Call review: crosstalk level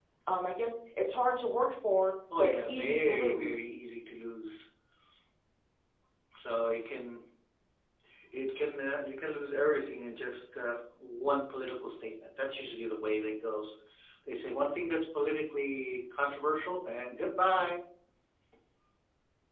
present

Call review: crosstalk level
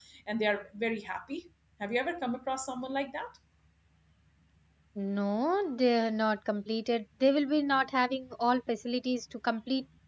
none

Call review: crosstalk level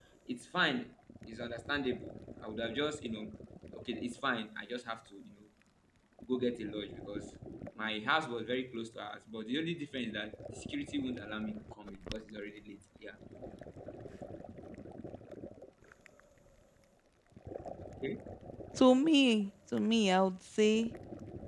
none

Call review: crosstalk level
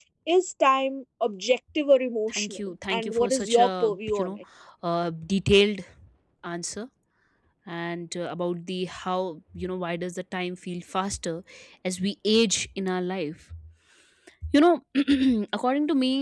present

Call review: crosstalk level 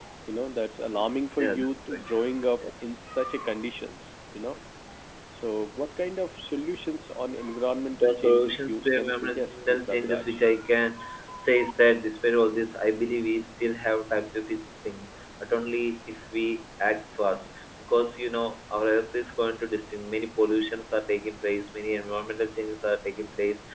present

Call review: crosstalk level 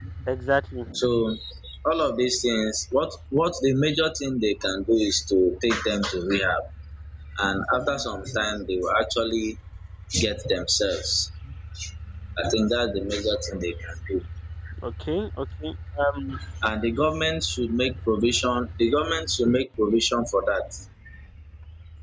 none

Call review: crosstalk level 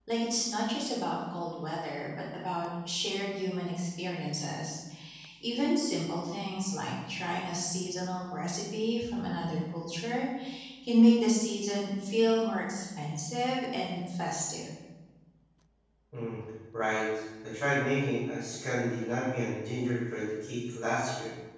none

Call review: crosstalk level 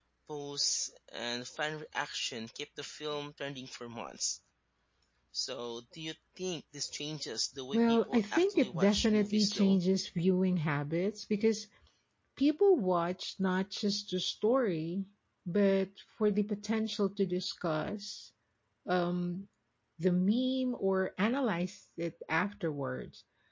present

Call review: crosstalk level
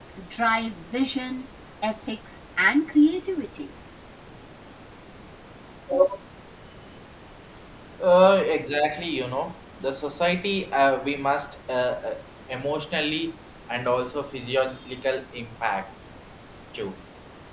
none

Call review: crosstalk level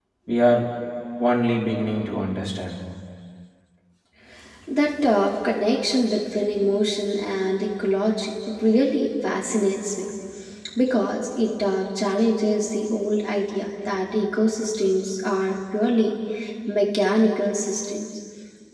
none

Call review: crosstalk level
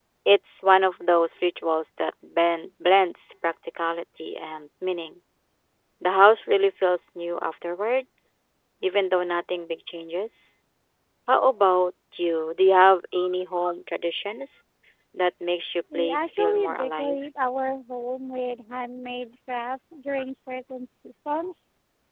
present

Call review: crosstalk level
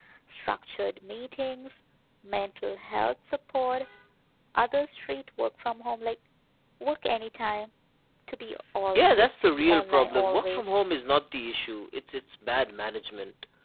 present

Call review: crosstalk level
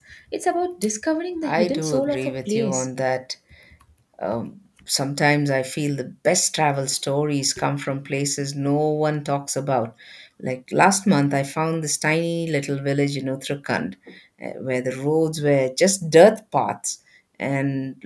present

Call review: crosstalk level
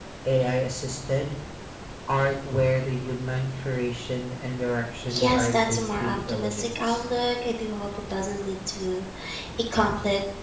present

